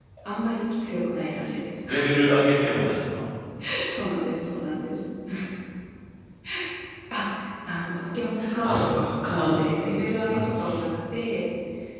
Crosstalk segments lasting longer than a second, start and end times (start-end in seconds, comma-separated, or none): 8.6-9.9